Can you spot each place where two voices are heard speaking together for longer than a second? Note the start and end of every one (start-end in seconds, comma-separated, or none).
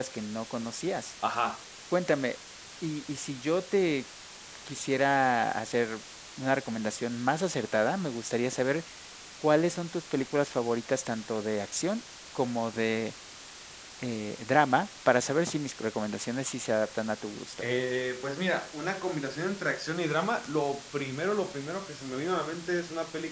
none